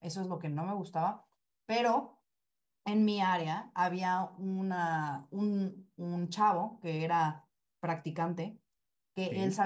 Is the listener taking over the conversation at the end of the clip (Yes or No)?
No